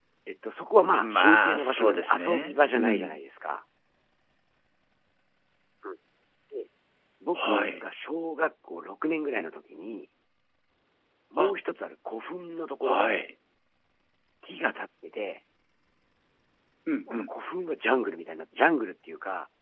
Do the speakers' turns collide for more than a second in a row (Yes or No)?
Yes